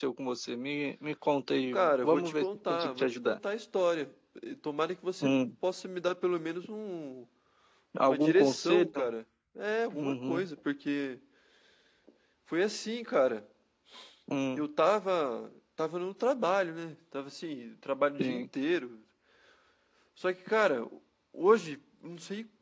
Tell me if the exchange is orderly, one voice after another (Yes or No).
No